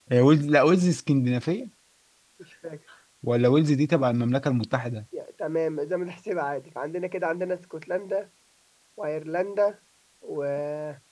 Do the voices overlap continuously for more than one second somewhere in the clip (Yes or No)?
No